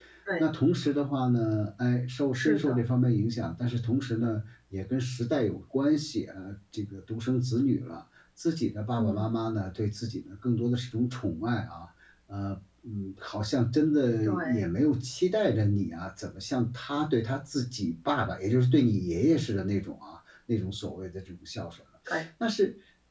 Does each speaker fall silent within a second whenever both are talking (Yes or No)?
Yes